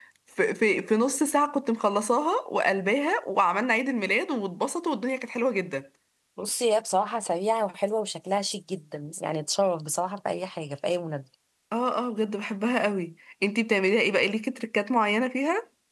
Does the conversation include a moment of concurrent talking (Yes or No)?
No